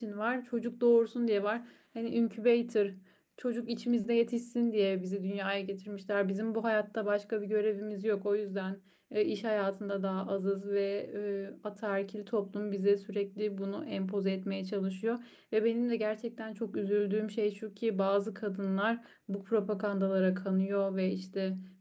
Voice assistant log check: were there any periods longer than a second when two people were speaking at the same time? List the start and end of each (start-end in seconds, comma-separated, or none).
none